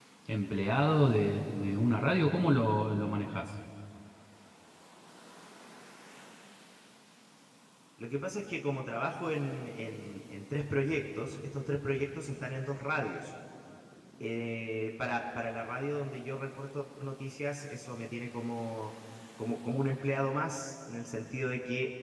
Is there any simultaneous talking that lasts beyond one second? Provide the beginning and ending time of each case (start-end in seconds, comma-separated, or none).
none